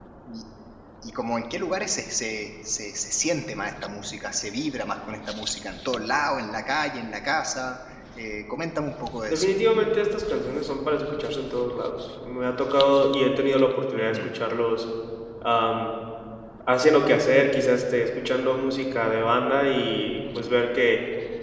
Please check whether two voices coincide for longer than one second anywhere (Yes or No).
No